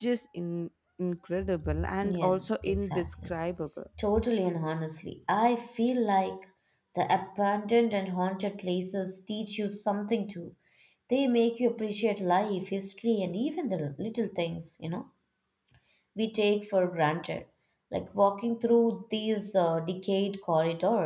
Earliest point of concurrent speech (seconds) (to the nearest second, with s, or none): 2 s